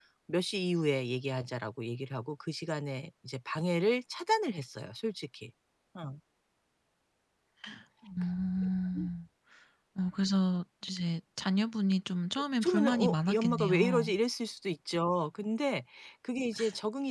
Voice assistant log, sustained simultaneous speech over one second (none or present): present